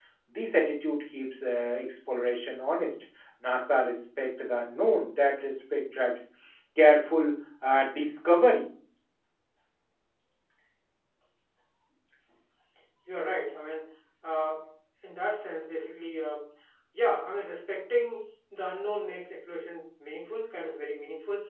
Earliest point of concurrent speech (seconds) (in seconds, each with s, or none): none